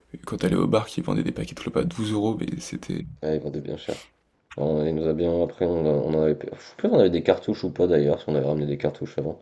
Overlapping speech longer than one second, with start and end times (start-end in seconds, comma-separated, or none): none